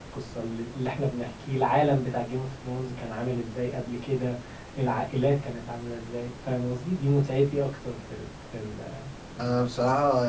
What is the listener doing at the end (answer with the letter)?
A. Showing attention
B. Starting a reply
B